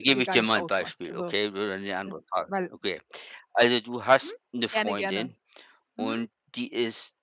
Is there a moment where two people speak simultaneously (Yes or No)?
Yes